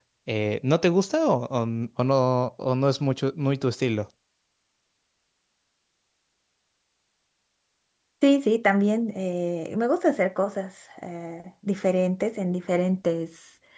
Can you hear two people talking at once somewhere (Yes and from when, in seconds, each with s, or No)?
No